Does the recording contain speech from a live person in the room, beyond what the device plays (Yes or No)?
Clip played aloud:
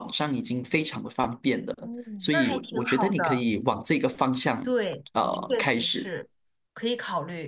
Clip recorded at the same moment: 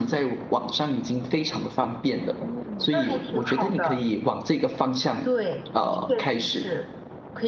No